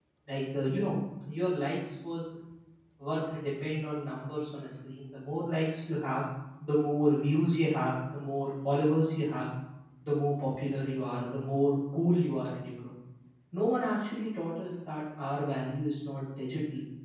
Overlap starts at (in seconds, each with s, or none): none